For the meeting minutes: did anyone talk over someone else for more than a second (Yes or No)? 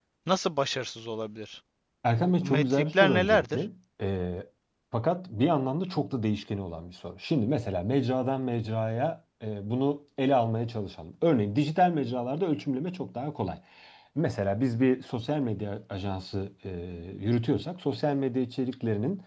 Yes